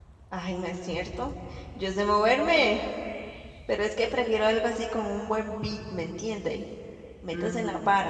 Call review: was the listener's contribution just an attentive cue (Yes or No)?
No